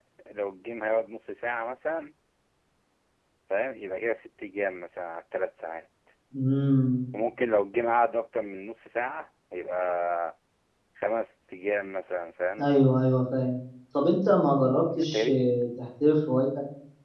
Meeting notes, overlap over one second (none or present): none